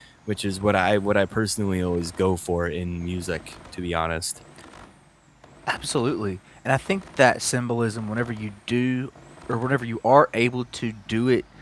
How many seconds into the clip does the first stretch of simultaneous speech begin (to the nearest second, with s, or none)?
none